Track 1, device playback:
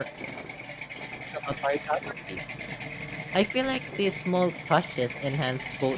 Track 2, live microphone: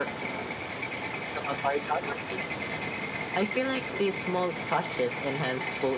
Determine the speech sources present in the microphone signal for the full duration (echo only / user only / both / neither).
echo only